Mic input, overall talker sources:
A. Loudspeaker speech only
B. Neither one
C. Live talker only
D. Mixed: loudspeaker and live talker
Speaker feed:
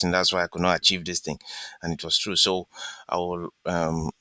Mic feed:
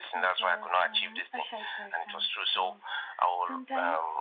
D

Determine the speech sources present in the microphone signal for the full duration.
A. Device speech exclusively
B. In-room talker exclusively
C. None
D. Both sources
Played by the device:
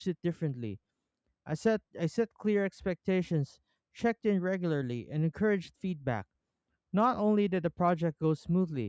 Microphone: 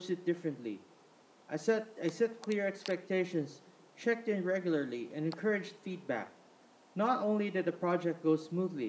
A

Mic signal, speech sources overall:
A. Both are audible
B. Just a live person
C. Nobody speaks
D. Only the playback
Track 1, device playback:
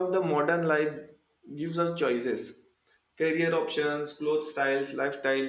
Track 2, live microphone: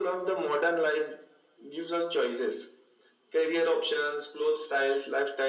D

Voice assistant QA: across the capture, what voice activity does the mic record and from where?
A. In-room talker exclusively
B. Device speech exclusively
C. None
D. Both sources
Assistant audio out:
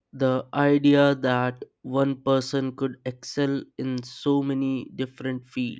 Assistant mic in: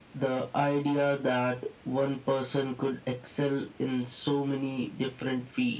B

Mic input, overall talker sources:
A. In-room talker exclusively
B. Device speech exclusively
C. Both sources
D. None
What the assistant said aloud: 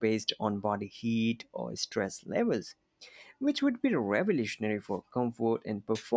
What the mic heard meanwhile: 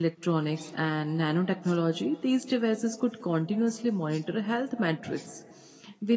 A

